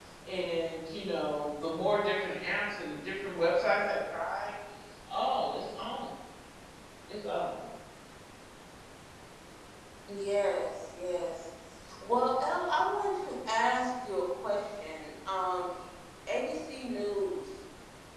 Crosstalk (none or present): none